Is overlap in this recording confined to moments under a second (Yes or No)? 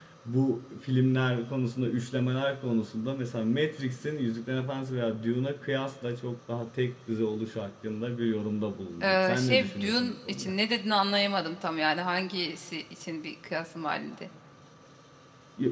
No